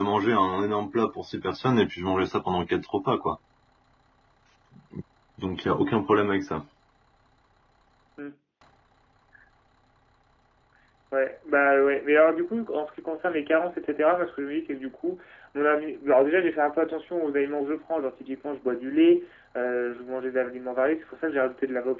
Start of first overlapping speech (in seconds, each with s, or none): none